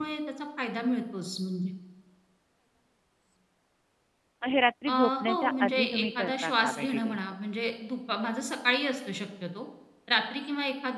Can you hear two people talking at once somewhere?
Yes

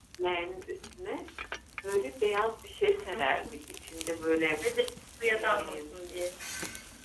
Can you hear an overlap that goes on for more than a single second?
No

